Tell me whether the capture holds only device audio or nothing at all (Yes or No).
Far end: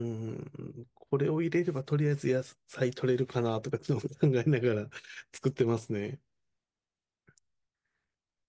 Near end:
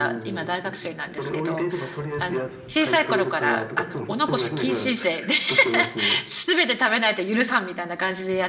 No